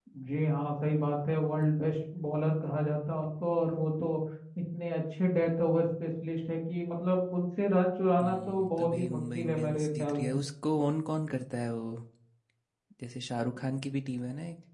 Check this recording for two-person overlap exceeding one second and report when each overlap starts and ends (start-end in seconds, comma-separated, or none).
8.2-10.4